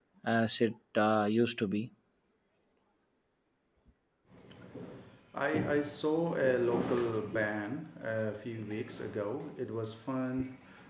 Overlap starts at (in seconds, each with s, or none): none